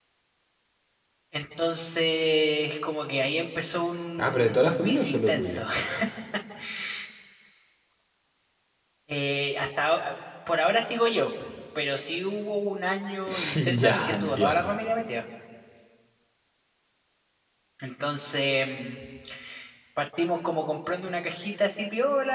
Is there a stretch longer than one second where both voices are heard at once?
Yes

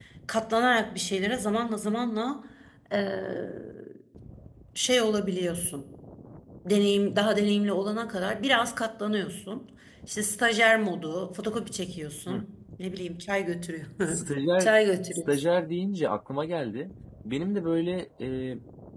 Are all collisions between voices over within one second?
Yes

